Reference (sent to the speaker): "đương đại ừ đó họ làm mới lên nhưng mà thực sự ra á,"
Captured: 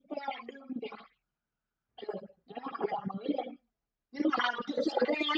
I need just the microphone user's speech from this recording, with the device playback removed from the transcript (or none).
none